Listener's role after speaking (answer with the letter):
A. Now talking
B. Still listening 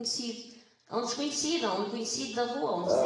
B